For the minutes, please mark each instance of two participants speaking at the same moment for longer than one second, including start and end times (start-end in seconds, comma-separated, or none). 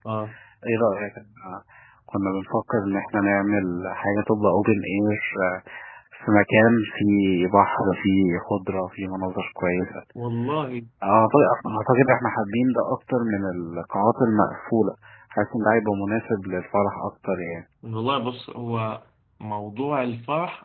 none